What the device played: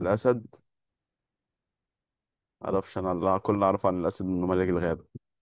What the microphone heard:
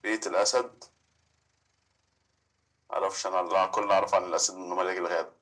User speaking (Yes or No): No